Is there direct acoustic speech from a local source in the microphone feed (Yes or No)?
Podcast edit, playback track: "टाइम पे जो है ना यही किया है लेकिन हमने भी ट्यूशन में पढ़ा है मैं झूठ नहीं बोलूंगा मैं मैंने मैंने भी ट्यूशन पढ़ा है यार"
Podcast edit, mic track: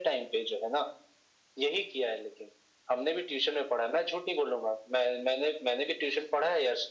No